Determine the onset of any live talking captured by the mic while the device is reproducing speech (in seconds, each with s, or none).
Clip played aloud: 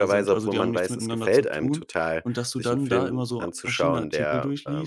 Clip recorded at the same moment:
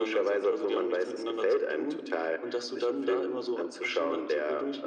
none